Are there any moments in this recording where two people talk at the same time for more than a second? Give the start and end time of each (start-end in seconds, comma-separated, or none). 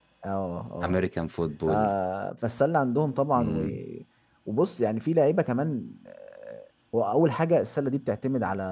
none